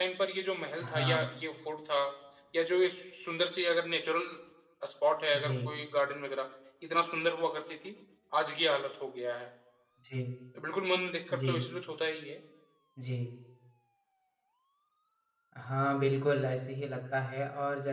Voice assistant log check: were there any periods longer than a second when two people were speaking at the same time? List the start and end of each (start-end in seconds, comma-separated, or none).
none